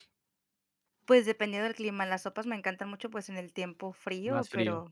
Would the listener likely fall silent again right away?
Yes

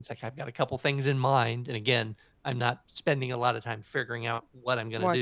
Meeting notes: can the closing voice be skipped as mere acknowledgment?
No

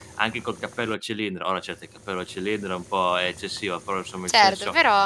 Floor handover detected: No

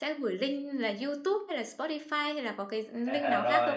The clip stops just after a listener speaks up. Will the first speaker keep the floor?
No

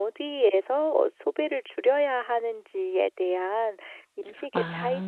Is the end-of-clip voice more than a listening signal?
No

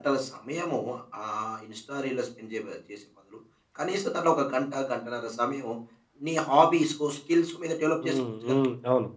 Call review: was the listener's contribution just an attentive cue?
No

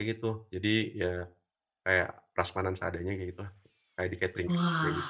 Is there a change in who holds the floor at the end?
Yes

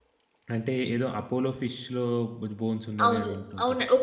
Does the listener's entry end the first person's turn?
Yes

